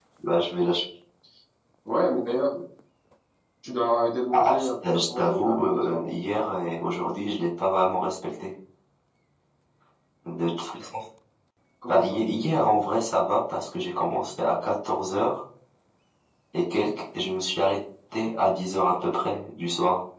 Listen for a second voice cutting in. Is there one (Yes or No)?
Yes